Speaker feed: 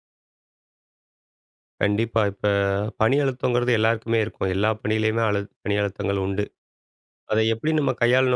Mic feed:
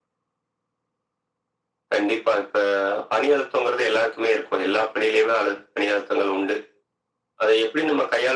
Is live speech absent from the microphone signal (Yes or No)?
Yes